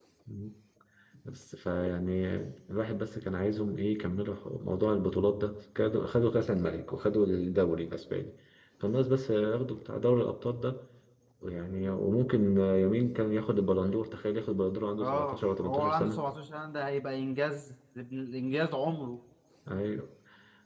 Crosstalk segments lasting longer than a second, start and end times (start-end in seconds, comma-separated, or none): 15.0-16.2